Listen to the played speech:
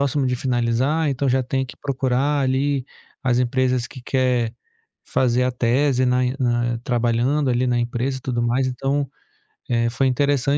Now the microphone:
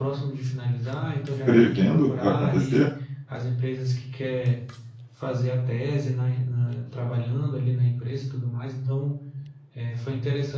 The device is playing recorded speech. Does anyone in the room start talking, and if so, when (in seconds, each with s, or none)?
1.4 s